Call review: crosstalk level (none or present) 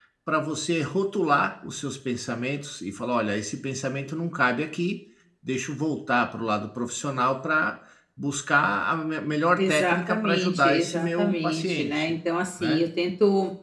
present